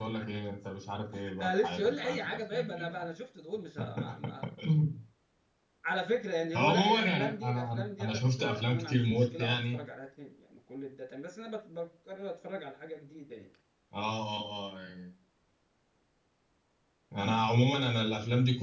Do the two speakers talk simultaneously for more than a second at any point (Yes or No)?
Yes